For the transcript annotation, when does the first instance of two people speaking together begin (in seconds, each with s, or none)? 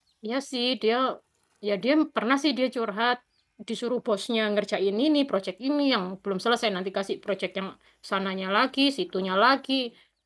none